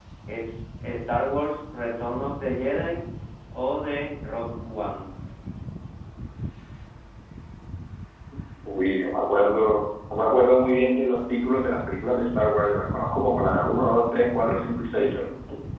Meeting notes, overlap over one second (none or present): none